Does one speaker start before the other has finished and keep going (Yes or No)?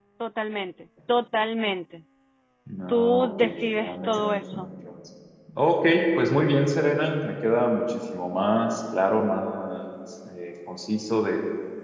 Yes